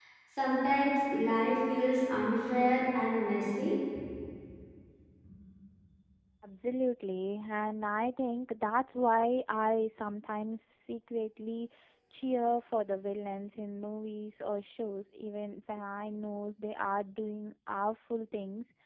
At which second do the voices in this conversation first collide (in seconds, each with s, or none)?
none